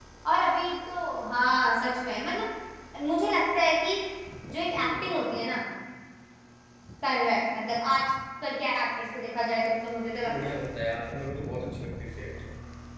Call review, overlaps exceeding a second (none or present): none